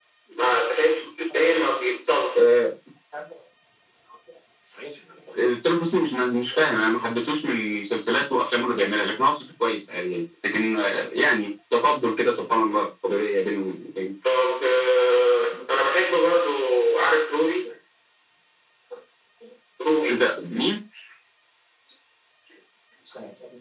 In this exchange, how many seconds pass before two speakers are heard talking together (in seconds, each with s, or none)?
none